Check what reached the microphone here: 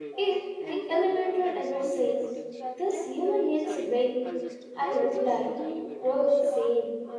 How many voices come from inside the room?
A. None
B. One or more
B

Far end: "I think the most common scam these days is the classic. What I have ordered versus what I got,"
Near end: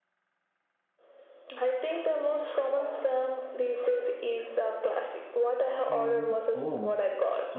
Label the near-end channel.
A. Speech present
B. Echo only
A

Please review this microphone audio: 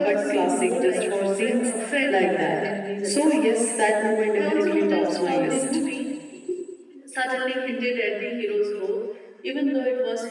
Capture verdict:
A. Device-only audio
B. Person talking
A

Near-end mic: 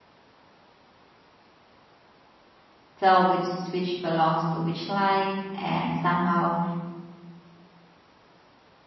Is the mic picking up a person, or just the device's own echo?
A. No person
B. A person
B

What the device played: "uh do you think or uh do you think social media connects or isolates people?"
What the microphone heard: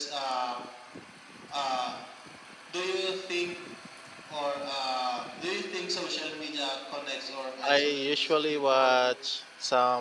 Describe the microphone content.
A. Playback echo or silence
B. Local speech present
B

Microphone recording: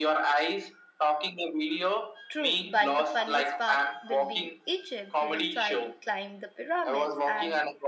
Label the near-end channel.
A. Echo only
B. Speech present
B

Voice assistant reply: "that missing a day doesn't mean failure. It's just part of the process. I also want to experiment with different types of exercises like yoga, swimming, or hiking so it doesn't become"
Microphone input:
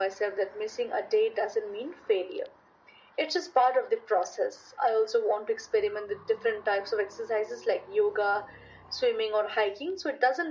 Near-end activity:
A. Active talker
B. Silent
B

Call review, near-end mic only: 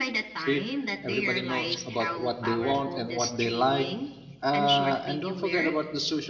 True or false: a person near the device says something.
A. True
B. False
A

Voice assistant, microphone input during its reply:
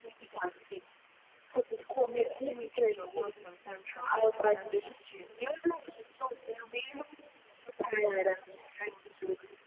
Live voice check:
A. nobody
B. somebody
B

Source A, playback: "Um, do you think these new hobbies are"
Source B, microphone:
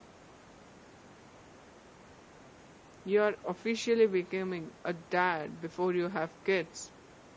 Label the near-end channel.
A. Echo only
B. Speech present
B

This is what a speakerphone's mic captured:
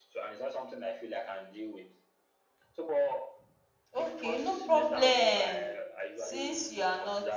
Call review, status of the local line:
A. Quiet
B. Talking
B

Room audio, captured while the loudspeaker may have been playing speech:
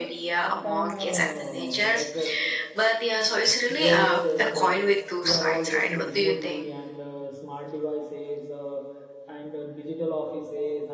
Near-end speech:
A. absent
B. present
B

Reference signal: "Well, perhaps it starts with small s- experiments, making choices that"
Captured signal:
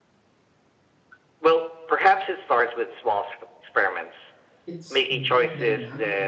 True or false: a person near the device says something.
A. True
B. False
A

